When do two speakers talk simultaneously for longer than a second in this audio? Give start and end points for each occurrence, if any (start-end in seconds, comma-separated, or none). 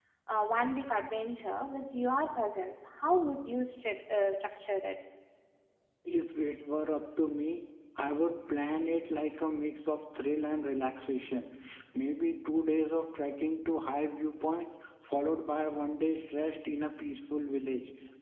none